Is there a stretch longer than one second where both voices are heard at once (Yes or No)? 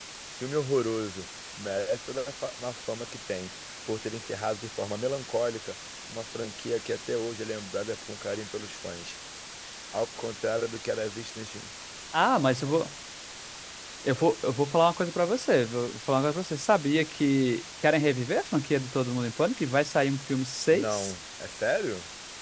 No